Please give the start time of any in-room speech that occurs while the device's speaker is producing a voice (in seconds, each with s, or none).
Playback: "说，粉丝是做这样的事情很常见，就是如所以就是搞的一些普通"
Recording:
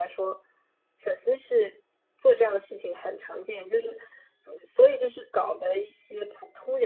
none